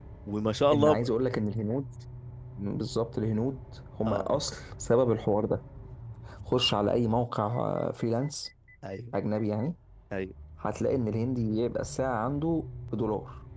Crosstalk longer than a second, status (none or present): none